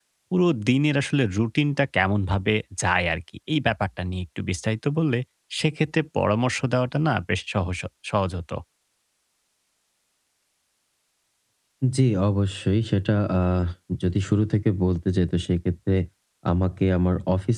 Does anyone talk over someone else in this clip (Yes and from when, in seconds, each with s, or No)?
No